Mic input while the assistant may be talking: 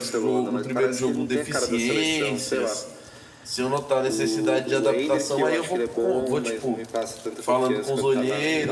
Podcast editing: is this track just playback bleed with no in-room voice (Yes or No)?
No